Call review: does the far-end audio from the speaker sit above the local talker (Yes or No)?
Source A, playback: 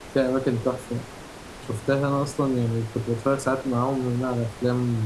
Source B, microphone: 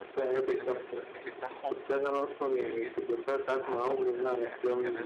Yes